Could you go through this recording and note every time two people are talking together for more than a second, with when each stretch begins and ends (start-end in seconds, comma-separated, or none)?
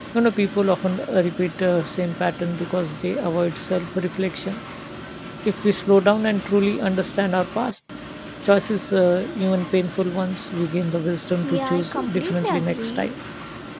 11.4-13.1